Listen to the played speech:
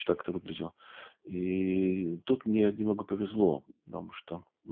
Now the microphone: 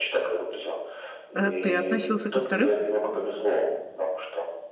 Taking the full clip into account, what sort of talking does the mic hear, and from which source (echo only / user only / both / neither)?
both